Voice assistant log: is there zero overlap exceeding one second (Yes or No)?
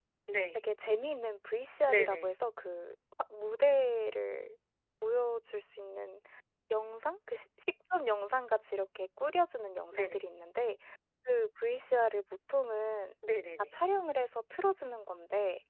Yes